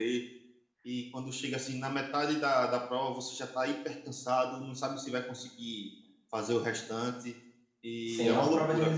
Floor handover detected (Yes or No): Yes